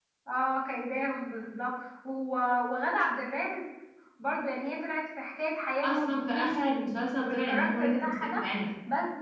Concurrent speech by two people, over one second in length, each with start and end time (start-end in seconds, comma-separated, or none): 5.8-8.5